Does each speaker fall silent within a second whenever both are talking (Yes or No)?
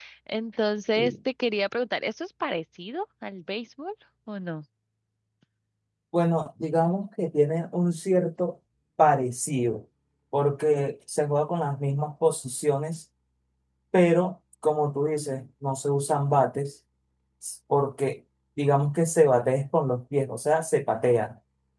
Yes